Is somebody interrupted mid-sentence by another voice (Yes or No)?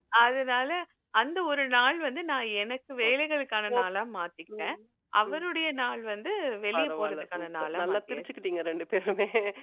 Yes